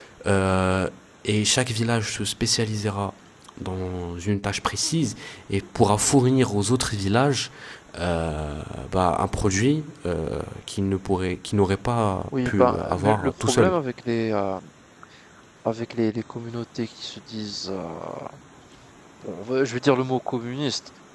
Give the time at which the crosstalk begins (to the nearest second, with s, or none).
12 s